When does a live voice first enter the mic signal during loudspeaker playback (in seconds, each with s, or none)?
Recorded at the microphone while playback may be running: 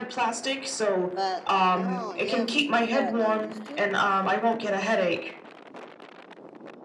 1.1 s